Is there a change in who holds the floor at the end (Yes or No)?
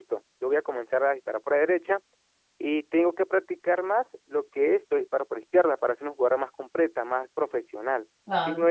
Yes